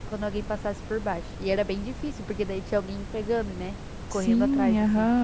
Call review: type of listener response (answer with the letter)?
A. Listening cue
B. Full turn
B